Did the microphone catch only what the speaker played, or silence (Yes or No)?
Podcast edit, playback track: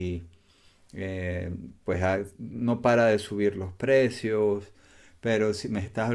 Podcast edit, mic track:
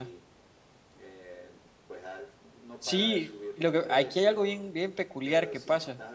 No